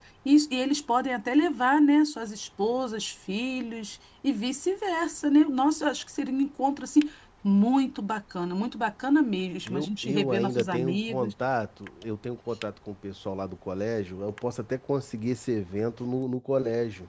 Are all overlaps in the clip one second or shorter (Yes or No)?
No